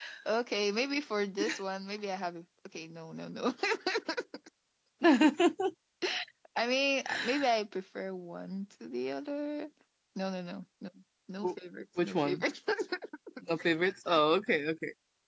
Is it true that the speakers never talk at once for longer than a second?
Yes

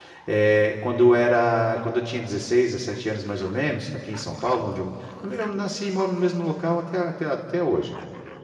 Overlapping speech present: No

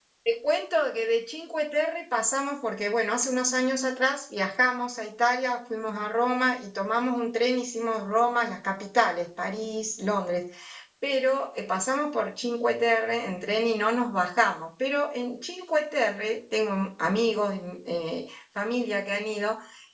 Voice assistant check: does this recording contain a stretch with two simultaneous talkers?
No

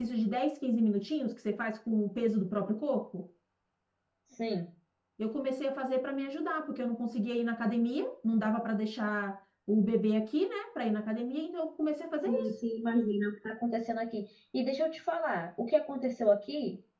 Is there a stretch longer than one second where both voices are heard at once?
No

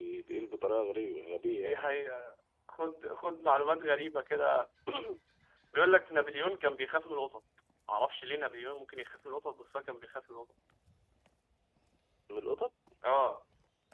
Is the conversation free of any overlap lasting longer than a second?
Yes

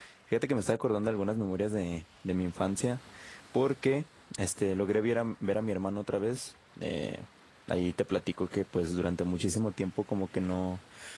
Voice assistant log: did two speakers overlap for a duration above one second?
No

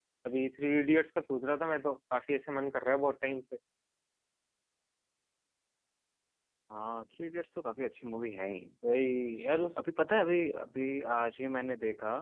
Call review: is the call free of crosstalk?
Yes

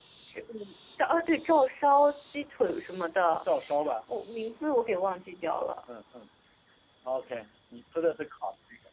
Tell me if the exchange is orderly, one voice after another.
Yes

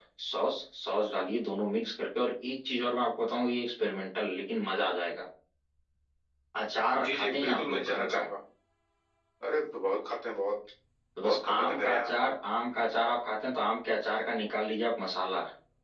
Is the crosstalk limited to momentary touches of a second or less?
No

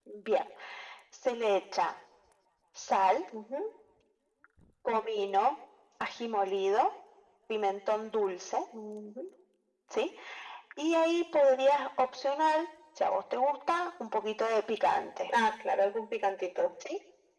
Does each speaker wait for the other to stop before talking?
Yes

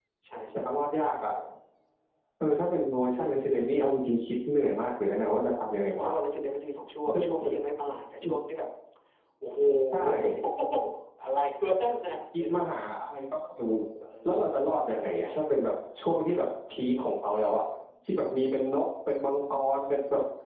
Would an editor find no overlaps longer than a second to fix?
Yes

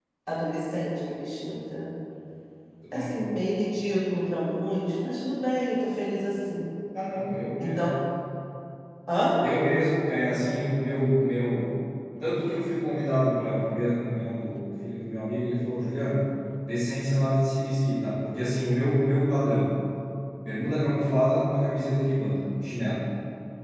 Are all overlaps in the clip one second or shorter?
Yes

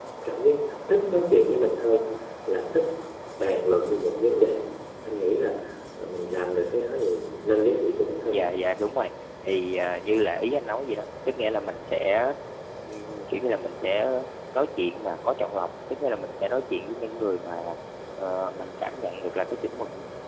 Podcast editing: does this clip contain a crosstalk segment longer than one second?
No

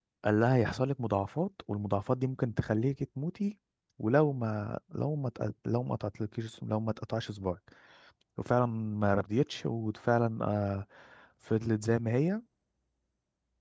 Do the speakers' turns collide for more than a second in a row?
No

